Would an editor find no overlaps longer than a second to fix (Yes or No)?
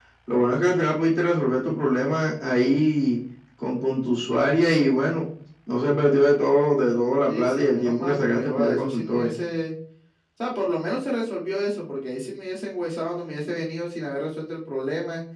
No